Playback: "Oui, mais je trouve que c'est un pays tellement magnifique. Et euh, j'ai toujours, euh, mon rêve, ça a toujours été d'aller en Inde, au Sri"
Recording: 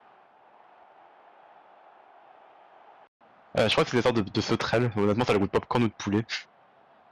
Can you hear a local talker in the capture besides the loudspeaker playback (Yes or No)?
Yes